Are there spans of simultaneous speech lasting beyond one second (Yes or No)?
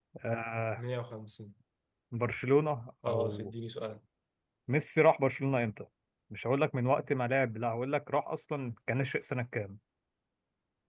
No